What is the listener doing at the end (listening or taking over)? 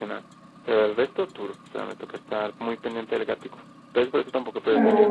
taking over